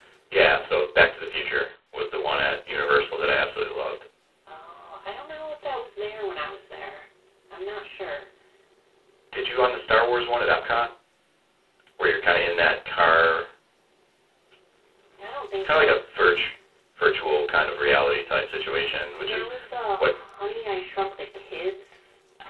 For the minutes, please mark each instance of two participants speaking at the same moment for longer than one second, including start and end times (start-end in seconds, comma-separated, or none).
none